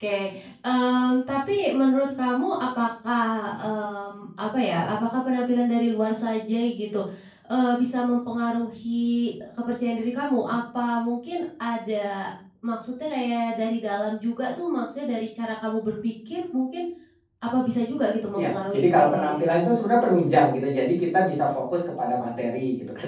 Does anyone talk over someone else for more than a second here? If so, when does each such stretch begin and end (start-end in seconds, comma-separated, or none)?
18.4-19.7